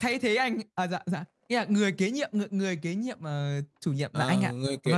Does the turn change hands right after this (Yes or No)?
Yes